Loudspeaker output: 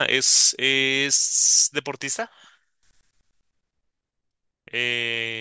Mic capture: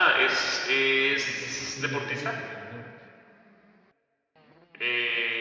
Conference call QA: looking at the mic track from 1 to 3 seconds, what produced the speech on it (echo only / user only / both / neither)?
both